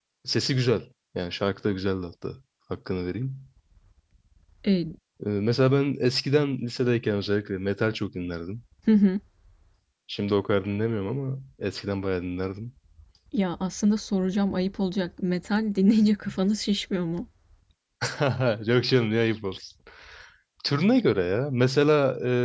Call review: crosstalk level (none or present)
none